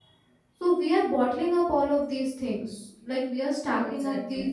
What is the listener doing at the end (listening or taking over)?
listening